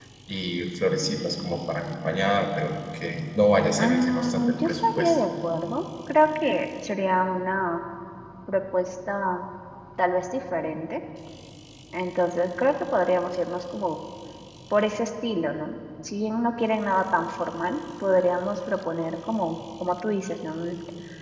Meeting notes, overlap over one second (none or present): present